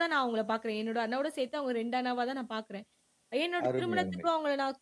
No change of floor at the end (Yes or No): Yes